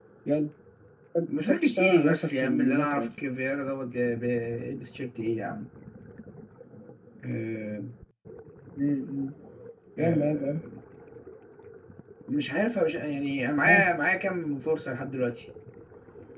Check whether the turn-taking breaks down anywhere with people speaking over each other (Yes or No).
Yes